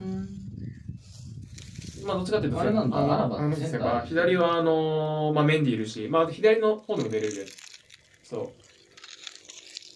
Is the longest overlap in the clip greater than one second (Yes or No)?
Yes